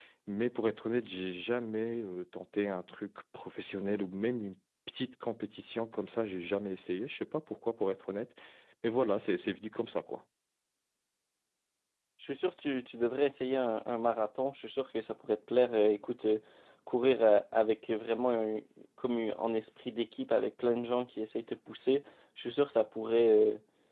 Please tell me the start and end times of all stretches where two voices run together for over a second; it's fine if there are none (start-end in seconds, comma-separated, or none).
none